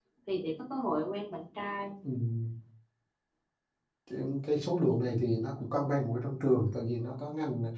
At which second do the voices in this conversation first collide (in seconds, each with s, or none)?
none